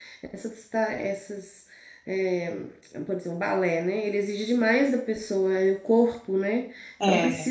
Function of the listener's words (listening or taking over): listening